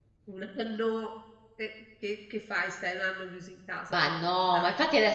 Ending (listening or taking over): taking over